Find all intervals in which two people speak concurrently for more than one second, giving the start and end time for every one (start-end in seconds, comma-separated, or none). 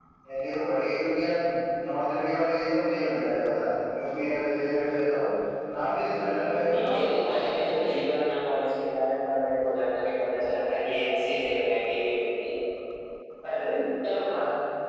6.7-7.9